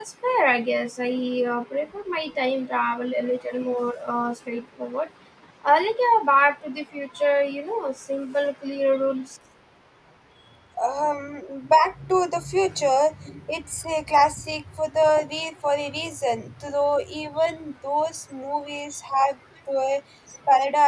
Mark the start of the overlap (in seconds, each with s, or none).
none